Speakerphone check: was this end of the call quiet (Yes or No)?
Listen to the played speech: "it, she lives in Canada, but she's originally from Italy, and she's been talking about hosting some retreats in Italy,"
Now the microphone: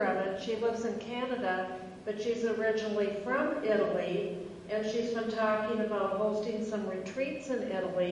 Yes